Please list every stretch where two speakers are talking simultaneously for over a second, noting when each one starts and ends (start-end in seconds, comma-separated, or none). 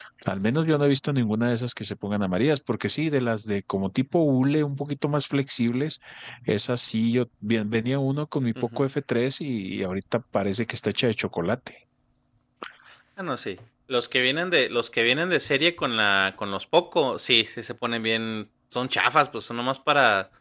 none